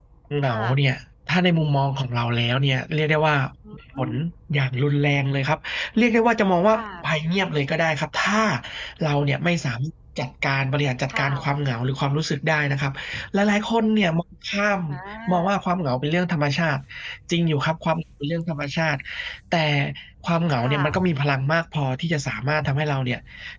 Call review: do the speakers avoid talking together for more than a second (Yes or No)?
Yes